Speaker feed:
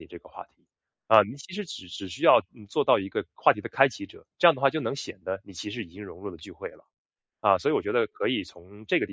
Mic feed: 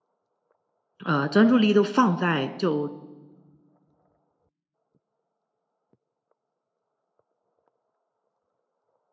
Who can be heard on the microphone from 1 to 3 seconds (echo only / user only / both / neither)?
user only